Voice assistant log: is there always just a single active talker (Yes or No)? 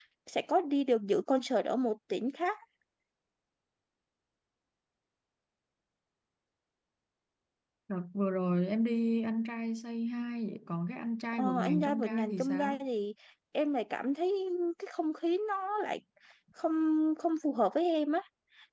No